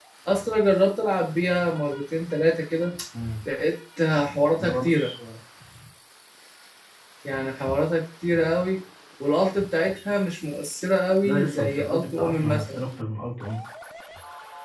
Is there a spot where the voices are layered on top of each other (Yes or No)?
Yes